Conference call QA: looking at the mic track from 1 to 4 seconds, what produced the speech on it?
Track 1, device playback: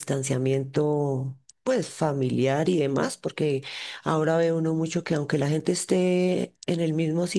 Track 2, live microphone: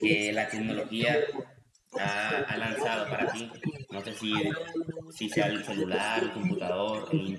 both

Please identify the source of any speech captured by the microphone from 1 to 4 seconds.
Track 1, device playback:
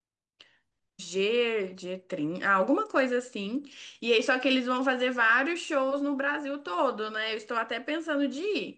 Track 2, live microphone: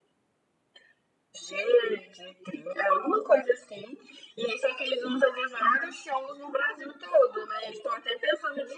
echo only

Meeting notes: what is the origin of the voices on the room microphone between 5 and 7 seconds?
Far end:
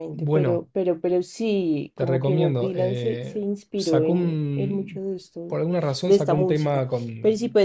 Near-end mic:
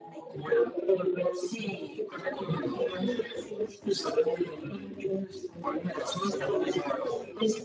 echo only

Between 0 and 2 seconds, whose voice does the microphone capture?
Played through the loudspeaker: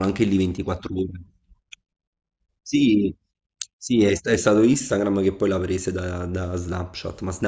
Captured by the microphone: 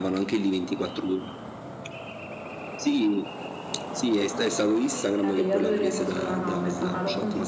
echo only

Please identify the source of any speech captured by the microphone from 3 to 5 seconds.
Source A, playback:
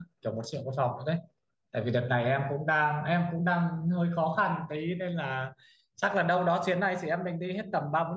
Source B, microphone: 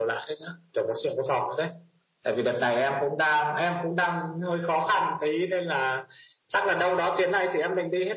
echo only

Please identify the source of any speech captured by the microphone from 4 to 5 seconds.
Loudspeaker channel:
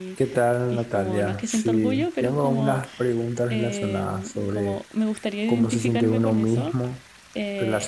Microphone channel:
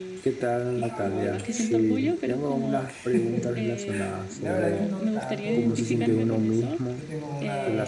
both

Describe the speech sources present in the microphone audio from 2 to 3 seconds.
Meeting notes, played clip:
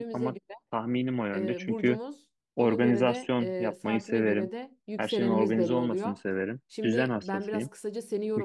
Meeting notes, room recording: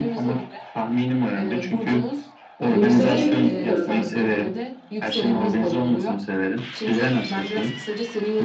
both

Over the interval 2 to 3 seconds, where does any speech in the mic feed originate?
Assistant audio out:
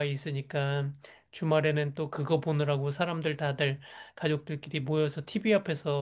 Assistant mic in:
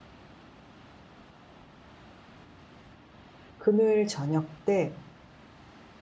neither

